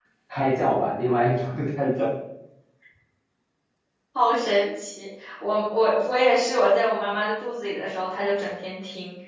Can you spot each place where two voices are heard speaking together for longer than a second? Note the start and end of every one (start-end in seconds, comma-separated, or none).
none